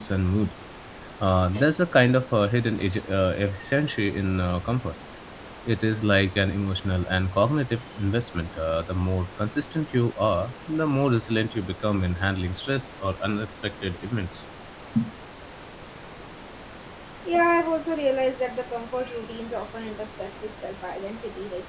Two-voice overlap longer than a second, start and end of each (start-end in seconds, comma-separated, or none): none